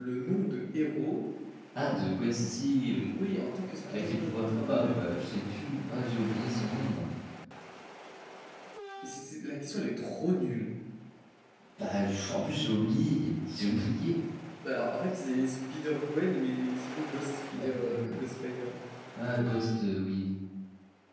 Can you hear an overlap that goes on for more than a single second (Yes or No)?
Yes